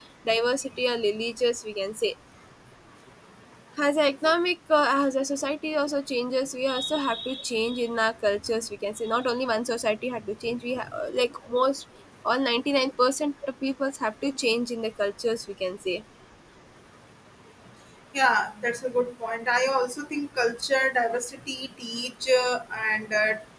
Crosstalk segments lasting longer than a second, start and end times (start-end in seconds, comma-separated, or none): none